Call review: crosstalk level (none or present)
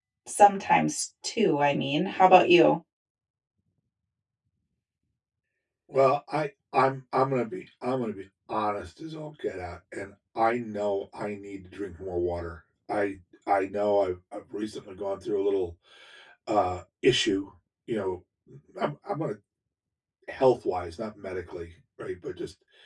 none